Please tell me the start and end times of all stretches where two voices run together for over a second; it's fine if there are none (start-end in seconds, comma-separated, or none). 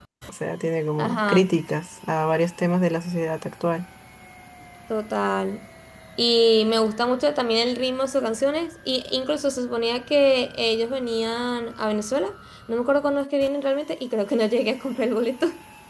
none